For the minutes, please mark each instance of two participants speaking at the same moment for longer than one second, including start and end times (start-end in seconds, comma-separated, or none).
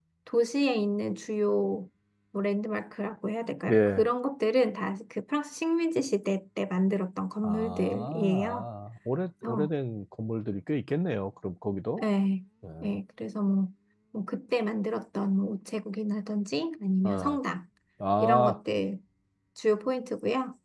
7.4-8.7